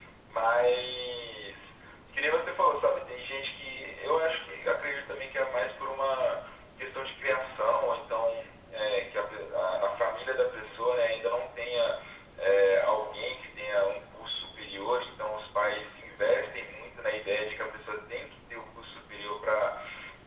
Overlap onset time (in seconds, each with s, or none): none